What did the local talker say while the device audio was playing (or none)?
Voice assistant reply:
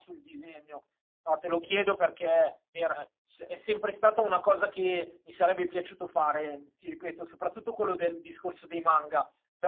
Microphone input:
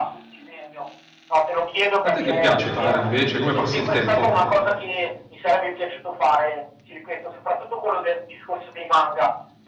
A te che piace fare invece? Come passi il tempo?